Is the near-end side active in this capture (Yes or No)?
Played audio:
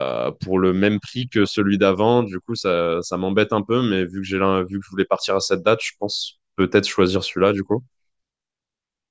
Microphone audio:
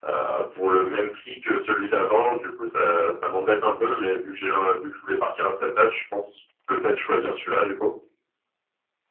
No